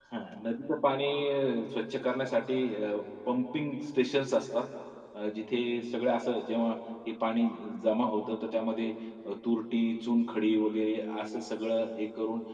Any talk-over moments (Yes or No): No